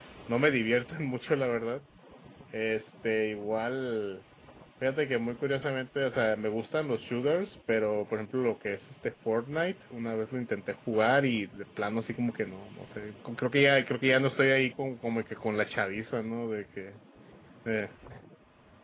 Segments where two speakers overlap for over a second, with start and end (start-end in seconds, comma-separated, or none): none